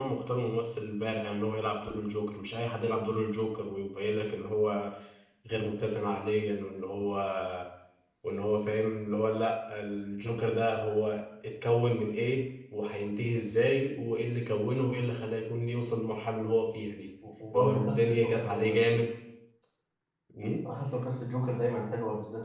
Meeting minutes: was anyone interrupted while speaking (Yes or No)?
Yes